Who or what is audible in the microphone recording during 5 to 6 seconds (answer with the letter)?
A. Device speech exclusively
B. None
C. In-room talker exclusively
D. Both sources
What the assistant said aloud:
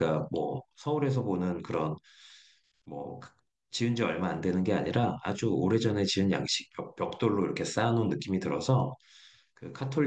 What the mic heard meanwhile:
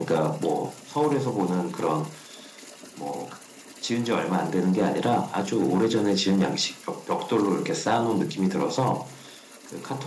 A